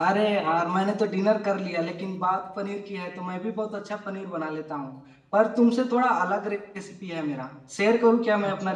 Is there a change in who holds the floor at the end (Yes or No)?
Yes